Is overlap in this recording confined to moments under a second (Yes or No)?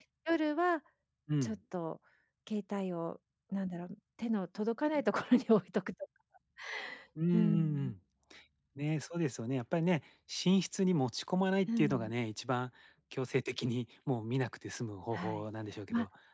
Yes